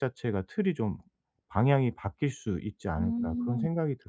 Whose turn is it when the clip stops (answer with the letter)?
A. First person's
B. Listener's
B